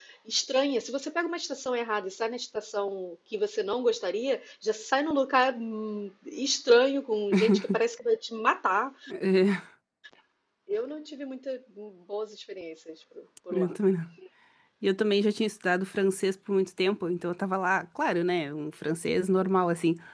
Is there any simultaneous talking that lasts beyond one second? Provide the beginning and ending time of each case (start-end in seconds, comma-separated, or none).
none